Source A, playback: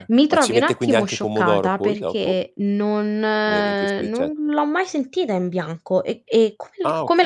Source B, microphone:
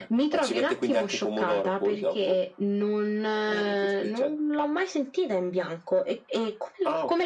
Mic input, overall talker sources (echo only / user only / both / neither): echo only